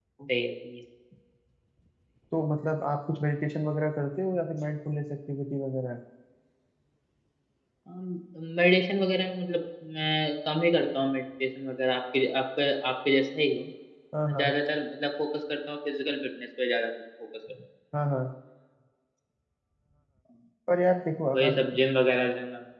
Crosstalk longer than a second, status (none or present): none